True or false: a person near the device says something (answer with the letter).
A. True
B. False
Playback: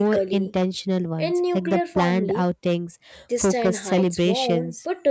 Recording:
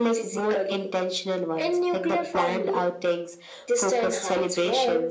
B